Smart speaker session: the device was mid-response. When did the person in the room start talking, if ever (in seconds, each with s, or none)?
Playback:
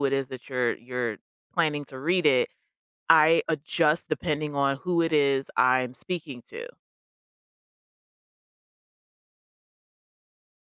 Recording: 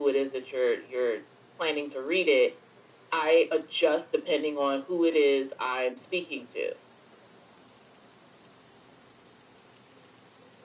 none